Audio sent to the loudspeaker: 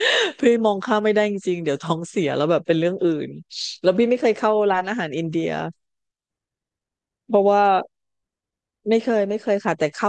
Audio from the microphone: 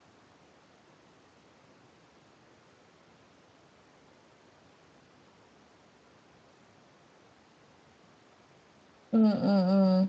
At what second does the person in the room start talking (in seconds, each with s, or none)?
9.1 s